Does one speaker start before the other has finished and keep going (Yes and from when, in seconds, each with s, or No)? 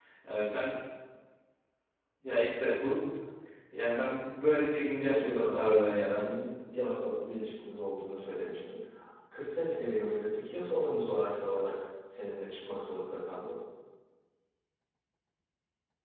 Yes, from 5.0 s